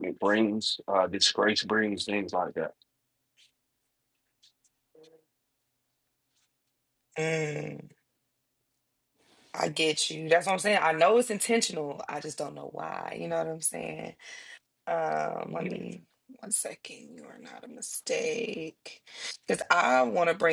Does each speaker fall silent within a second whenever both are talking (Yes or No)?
Yes